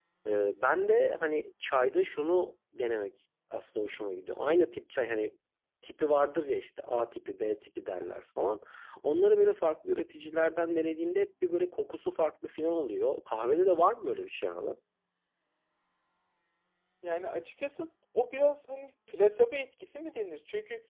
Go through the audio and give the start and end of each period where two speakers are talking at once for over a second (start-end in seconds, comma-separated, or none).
none